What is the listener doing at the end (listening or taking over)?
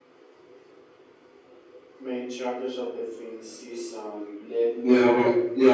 taking over